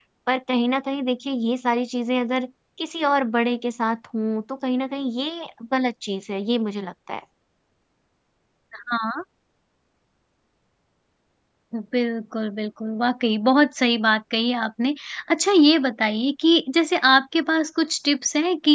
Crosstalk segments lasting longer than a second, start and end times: none

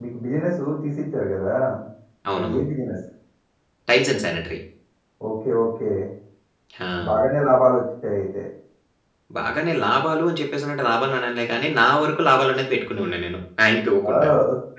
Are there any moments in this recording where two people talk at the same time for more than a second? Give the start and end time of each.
none

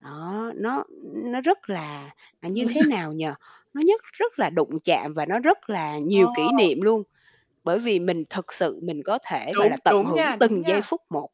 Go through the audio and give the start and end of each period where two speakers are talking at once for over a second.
9.5-10.8

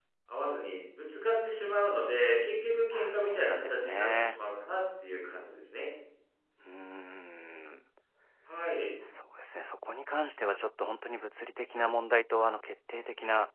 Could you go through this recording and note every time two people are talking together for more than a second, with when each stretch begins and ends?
2.9-4.4

